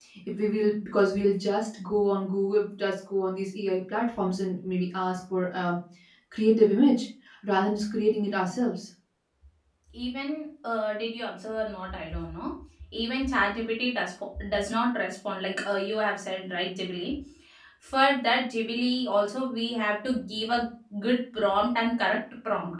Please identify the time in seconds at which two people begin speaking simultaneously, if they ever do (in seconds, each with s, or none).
none